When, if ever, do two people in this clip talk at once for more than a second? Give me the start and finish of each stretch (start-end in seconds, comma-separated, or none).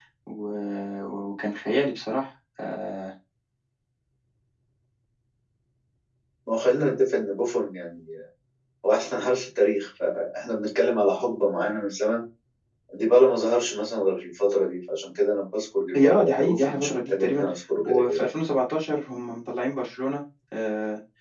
15.9-17.4